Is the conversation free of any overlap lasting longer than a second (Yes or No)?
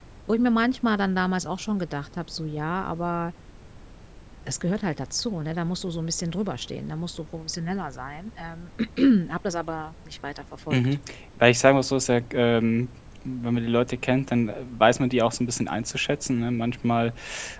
Yes